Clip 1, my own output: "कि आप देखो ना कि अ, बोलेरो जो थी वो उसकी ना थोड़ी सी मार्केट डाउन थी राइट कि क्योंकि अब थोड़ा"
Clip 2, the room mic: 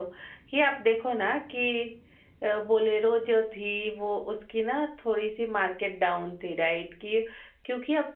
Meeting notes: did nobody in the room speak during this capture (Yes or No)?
Yes